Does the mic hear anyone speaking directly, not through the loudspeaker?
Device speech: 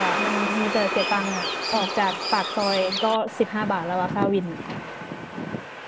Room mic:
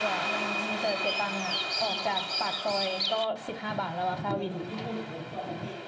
Yes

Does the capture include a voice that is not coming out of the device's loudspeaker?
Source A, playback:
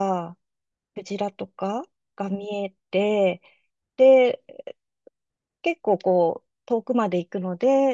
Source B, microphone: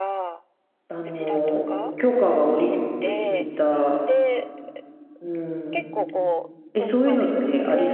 Yes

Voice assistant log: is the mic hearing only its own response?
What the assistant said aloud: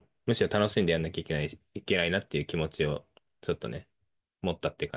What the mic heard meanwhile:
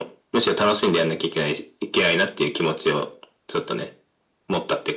Yes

